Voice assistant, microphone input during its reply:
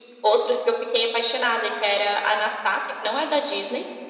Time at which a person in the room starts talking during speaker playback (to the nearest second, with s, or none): none